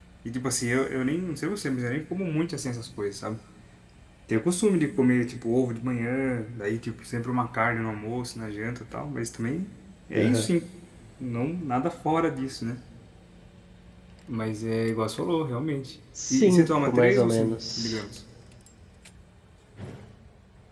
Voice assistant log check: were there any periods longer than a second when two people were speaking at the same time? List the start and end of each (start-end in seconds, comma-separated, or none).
16.3-18.0